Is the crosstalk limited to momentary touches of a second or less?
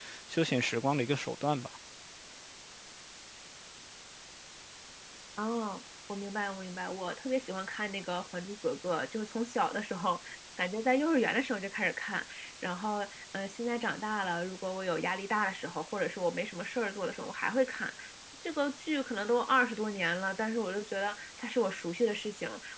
Yes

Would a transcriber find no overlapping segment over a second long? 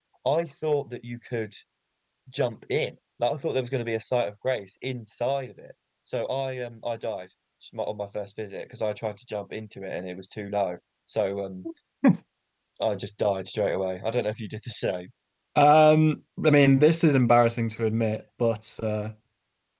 Yes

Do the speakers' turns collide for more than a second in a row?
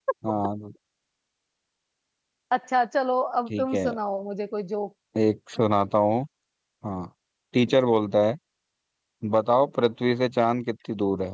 No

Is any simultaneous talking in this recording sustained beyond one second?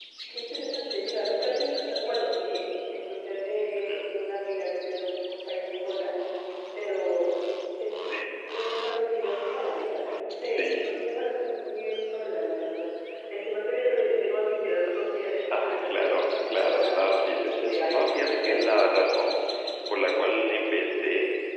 Yes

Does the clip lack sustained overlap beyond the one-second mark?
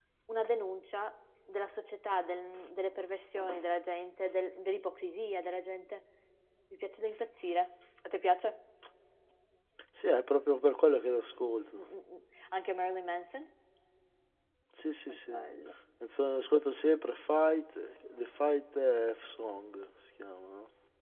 Yes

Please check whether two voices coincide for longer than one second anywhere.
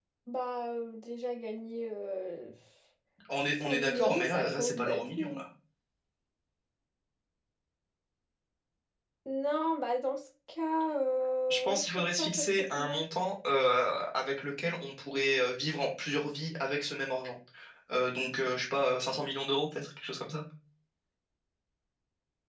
Yes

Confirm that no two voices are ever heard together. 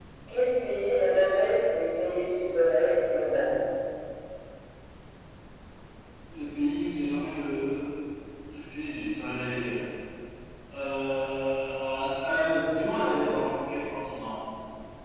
Yes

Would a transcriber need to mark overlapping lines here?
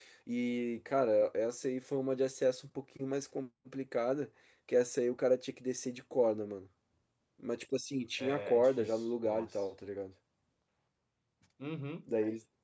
Yes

